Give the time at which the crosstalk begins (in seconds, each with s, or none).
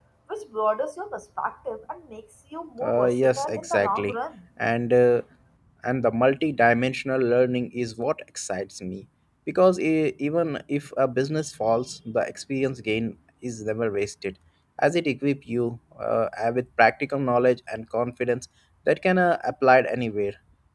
2.8 s